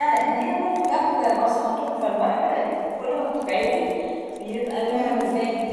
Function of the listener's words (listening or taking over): listening